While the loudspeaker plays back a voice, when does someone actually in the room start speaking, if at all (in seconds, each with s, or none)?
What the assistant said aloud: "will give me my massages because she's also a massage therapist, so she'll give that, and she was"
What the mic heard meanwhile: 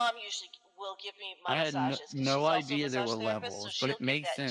1.5 s